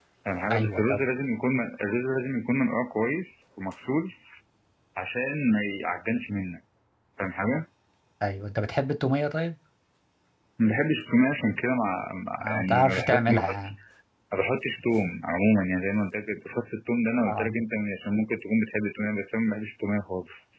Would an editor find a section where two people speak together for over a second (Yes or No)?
Yes